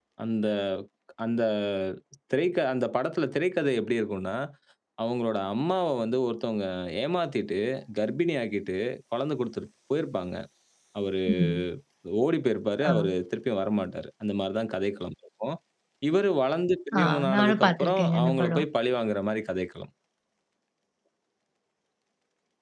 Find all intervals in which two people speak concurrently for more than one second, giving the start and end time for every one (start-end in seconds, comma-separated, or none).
17.0-18.7